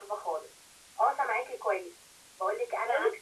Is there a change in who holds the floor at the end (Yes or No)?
No